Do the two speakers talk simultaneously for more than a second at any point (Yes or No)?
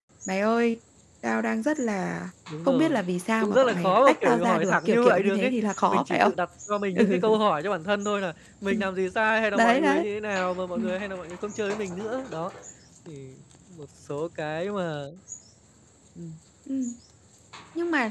Yes